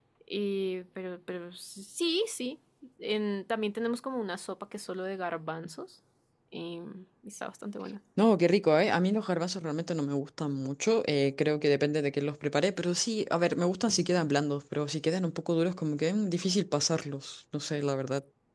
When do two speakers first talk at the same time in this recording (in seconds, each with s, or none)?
none